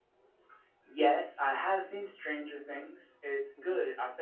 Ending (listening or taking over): listening